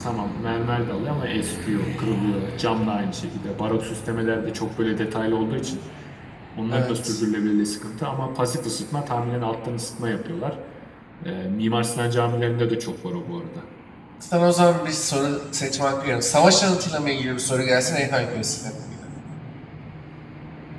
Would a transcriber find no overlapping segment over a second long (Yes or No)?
Yes